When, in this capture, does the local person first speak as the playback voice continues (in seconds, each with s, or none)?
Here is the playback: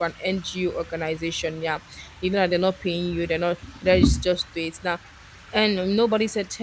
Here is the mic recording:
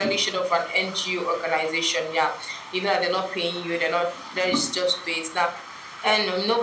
none